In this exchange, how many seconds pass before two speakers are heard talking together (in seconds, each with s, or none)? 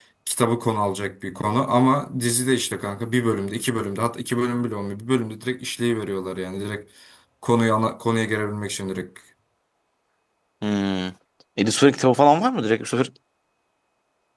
none